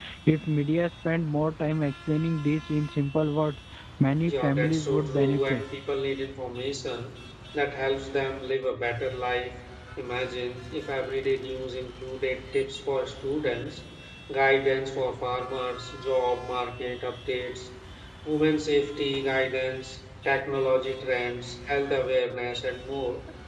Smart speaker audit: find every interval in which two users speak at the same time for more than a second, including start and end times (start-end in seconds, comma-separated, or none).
4.3-5.6